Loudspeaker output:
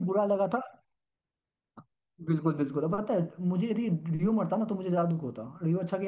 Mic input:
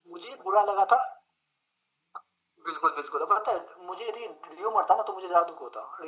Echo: present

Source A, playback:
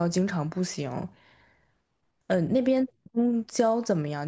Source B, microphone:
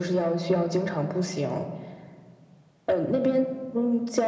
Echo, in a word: present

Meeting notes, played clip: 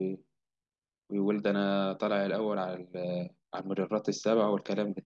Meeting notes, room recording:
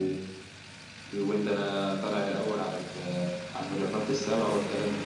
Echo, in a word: present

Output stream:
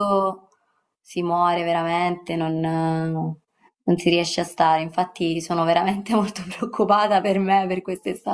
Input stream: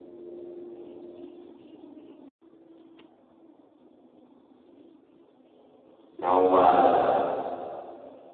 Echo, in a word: none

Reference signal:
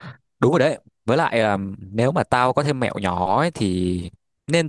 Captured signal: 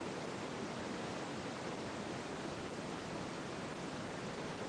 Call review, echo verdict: none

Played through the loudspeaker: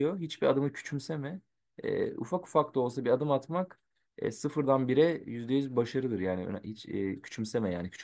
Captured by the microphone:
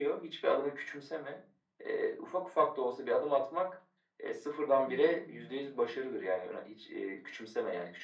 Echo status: present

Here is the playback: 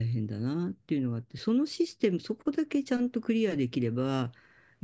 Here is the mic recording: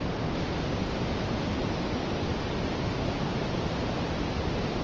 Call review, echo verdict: none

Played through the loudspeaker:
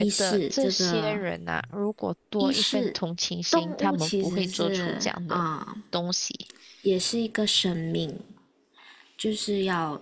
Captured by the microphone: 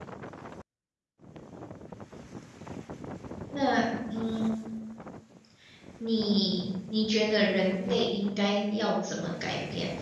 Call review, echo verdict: none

